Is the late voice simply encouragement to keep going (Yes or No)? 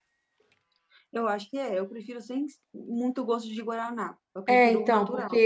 No